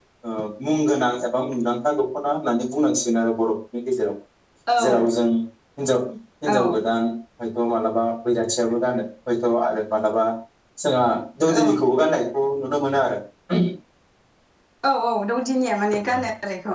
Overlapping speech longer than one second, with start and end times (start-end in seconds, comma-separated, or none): none